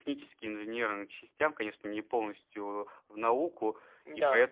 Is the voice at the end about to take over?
No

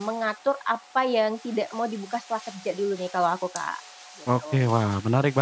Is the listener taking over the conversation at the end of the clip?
Yes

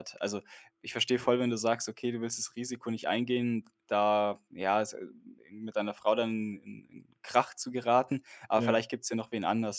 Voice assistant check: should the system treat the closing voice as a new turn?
No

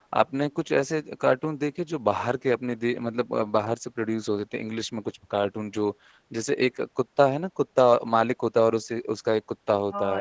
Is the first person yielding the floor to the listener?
Yes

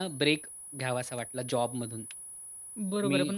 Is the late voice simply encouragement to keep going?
No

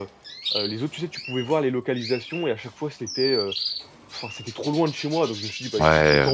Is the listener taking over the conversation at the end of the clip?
Yes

